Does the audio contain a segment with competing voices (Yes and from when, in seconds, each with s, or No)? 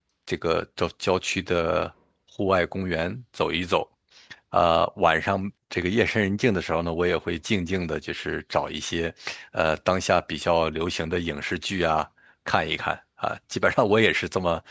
No